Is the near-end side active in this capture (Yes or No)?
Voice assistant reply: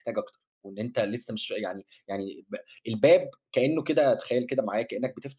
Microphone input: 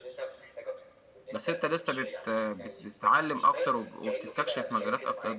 Yes